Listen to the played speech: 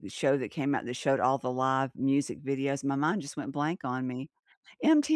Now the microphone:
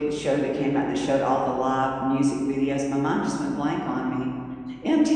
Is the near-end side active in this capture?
No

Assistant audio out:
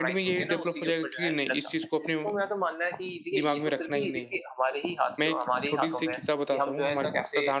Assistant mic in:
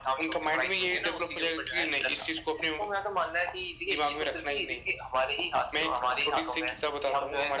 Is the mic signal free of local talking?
Yes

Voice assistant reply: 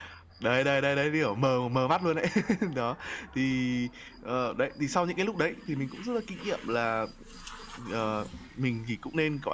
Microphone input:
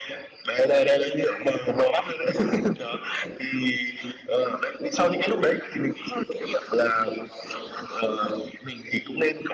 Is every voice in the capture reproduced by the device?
Yes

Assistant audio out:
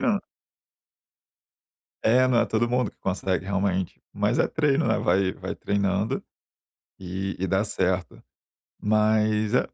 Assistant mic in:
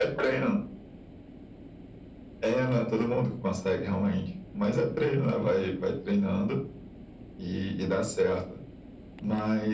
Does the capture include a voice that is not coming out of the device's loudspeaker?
No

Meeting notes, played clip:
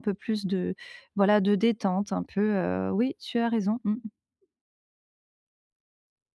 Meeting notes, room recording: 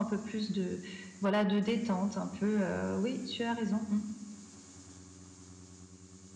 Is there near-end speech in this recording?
No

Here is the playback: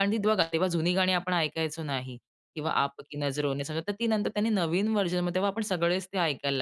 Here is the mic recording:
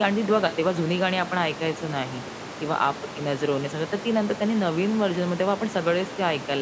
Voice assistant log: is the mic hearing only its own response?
Yes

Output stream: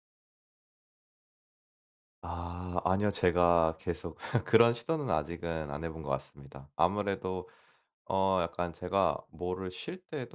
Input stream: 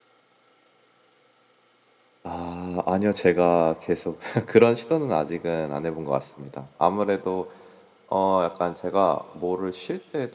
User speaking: No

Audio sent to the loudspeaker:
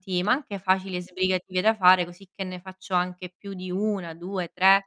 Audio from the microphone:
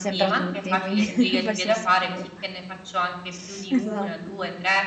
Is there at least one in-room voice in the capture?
Yes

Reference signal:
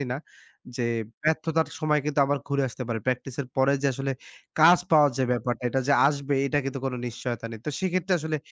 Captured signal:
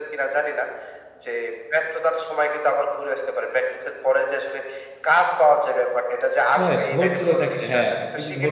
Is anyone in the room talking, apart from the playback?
Yes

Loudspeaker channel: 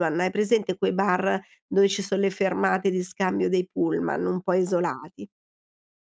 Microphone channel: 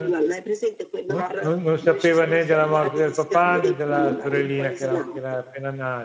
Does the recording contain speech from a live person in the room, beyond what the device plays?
Yes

